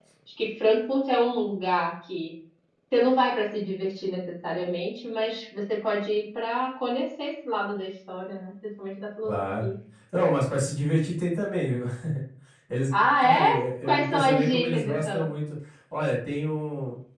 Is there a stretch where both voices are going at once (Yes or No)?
Yes